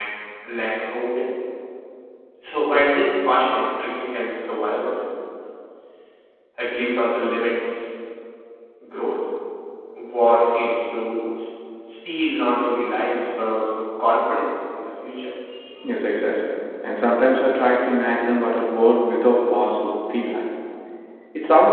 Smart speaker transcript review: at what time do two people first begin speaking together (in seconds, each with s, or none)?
none